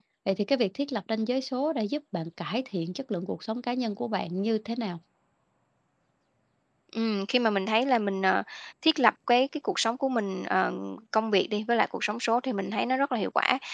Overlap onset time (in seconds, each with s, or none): none